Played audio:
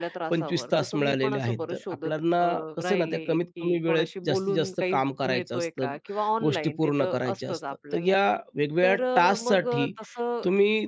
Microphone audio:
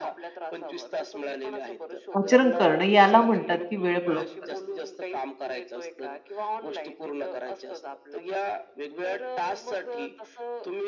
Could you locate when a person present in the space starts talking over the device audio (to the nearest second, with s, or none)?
2 s